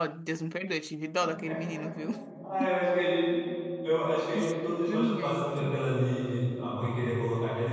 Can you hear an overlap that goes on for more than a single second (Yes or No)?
Yes